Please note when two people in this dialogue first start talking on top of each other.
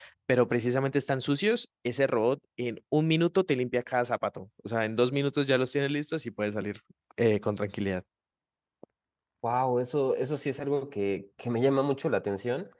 none

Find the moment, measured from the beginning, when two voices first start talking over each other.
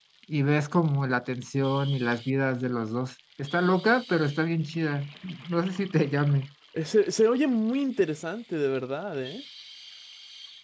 none

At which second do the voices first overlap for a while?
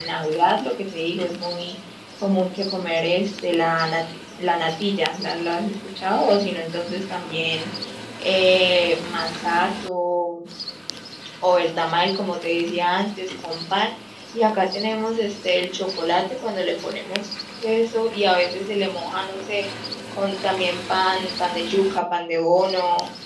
none

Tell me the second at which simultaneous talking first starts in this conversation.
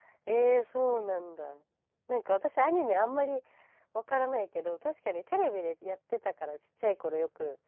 none

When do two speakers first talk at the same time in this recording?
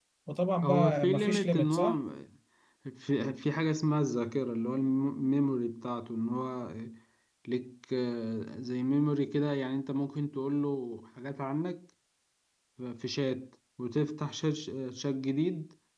1 s

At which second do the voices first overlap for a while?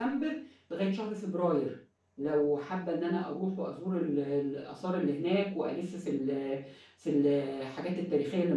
none

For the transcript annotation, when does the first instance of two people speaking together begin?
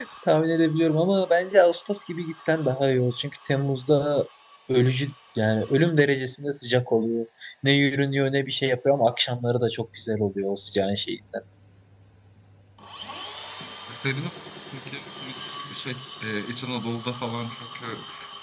none

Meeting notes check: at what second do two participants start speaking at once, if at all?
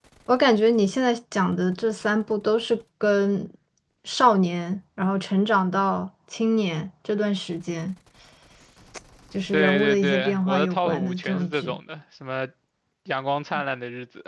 10 s

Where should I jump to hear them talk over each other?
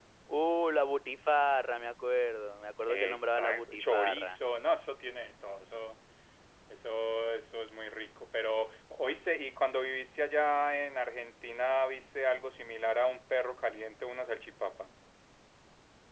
3 s

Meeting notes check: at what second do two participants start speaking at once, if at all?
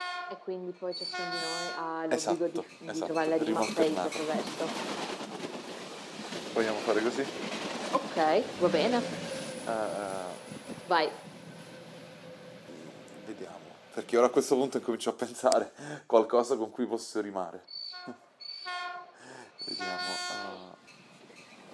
2 s

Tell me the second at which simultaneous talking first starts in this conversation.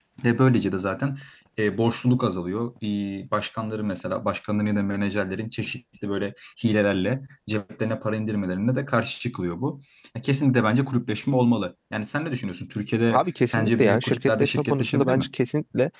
13 s

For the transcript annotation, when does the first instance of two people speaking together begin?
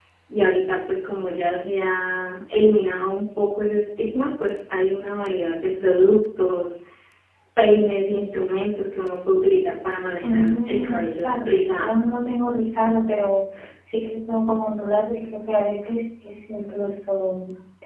10 s

